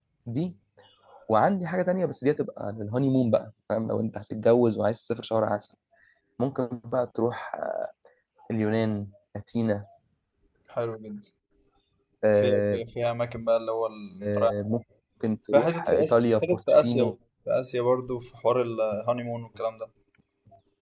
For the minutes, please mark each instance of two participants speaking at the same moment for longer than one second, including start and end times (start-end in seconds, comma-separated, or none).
15.5-17.1